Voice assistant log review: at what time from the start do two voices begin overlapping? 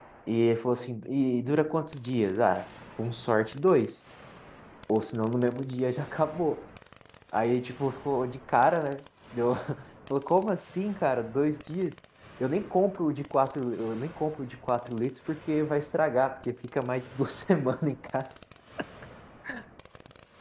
none

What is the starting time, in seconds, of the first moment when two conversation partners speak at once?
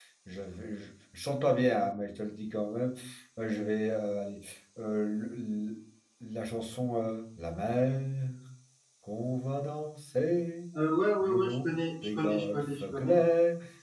11.2 s

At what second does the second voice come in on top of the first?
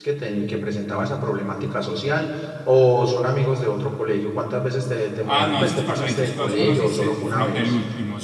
5.2 s

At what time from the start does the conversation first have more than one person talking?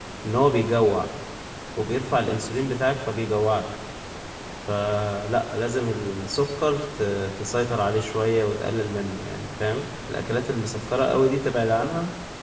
none

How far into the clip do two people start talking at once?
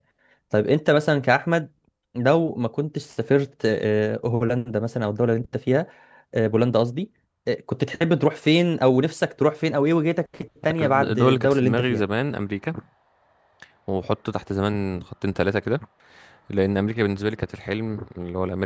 10.6 s

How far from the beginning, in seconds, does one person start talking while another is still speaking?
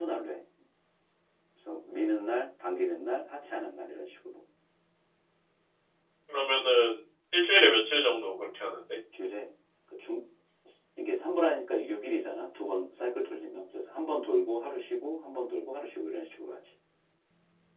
none

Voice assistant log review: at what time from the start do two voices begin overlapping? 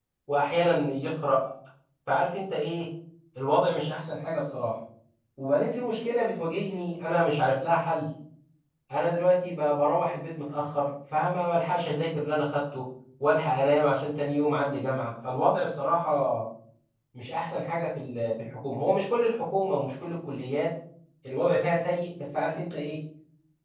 none

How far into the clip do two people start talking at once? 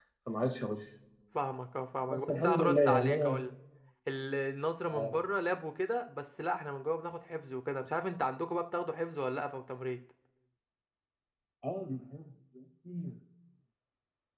2.1 s

